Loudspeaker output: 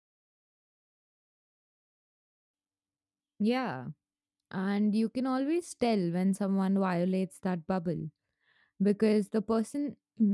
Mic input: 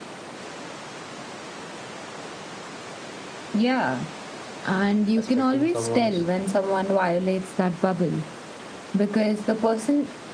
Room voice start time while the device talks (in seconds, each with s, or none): 5.1 s